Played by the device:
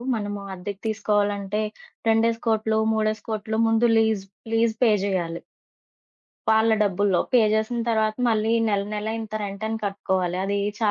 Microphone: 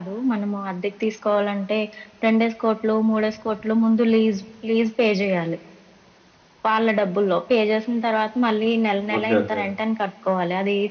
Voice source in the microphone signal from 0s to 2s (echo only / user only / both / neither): echo only